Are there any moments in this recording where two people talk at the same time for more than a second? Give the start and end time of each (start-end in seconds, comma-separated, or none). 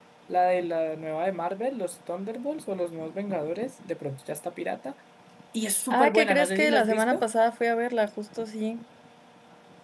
5.9-7.2